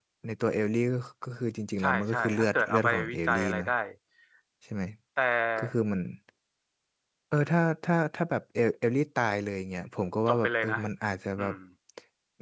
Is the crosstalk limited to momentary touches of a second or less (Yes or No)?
No